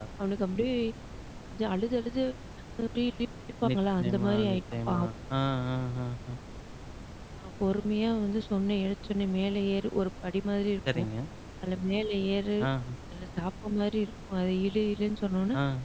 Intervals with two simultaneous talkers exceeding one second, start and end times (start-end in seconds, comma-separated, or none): 3.7-5.0